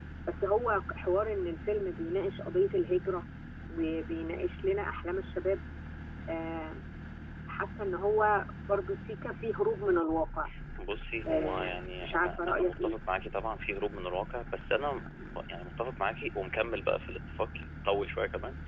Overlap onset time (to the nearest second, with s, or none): 11 s